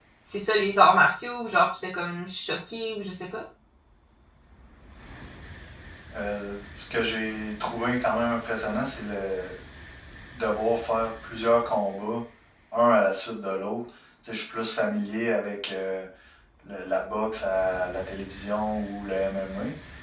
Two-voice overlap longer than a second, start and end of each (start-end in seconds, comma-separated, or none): none